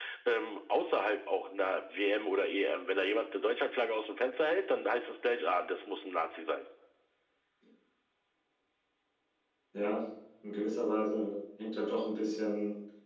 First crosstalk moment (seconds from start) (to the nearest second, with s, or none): none